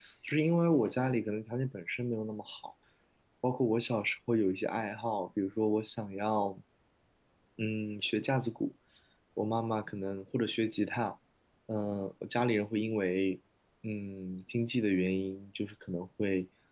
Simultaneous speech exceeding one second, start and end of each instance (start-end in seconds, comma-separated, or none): none